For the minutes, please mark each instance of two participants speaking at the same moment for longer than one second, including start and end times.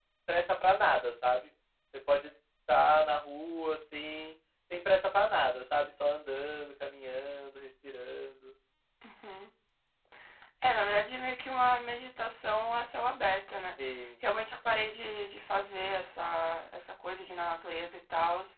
none

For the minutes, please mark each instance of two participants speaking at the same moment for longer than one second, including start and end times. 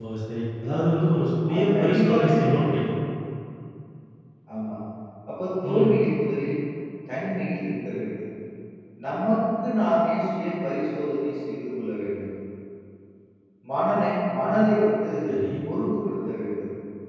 1.5-2.9

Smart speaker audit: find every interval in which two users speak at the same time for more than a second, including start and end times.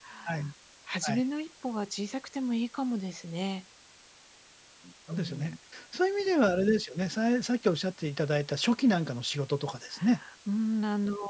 none

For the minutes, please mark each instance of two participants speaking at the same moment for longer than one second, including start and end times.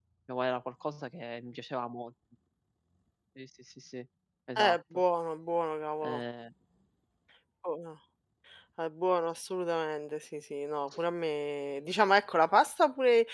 none

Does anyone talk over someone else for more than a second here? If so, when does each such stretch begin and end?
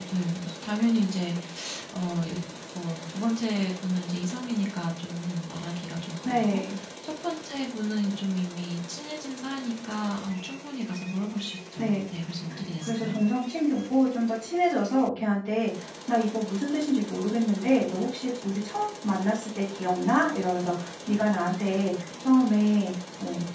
none

